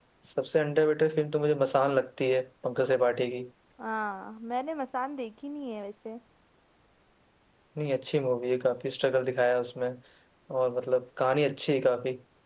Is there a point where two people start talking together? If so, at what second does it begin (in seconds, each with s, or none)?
none